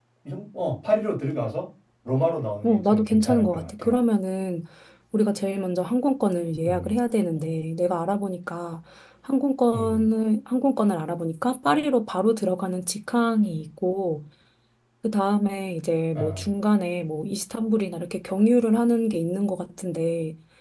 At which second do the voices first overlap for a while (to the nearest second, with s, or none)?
3 s